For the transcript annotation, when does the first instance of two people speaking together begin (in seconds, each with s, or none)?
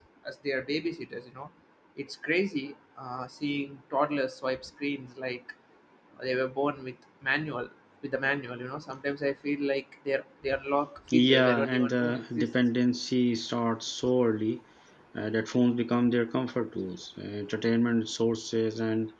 11.1 s